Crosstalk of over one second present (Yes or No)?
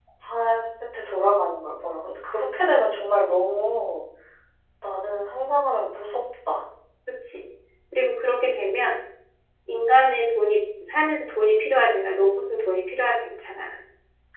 No